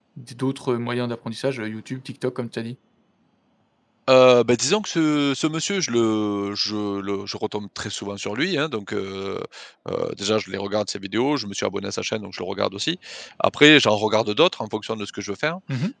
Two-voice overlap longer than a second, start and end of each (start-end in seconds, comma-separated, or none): none